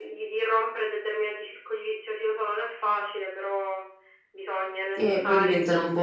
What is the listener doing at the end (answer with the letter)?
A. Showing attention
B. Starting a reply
B